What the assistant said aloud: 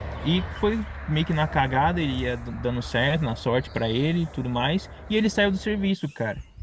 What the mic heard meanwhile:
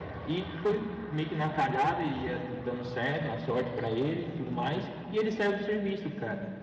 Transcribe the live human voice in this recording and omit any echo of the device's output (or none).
entendeu?